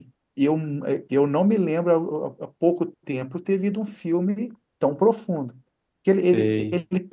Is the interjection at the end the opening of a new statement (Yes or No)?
No